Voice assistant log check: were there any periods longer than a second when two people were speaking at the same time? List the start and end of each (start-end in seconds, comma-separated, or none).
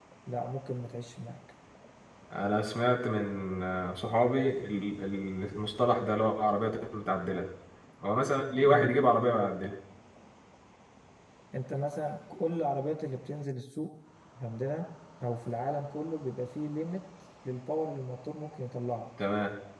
none